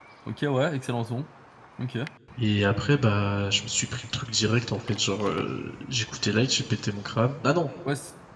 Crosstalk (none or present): none